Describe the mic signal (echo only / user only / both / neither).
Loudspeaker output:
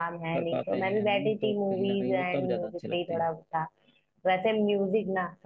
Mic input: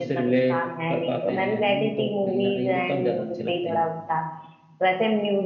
echo only